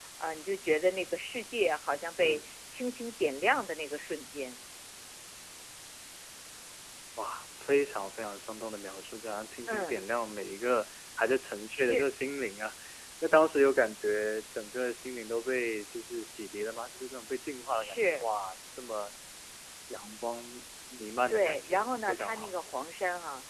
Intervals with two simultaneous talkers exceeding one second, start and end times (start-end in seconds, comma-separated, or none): 21.3-22.5